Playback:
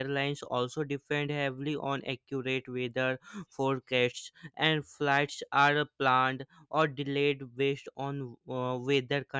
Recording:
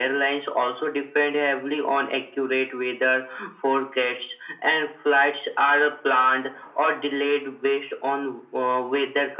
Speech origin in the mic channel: echo only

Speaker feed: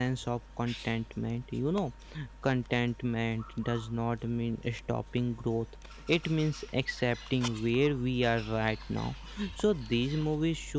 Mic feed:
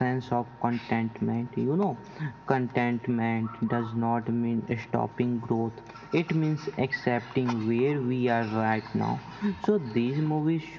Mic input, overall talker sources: echo only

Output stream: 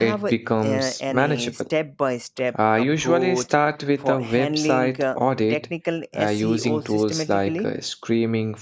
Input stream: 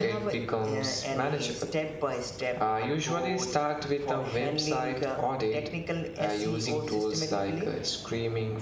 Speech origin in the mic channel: echo only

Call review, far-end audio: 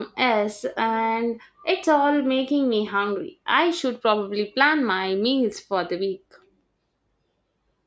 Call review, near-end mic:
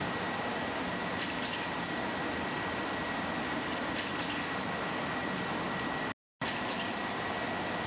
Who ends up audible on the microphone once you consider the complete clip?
neither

